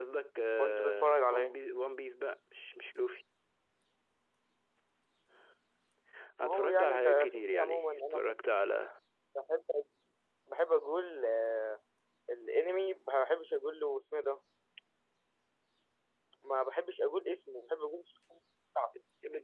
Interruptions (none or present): present